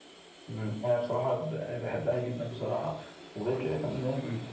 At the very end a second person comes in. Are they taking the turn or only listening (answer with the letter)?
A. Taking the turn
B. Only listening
B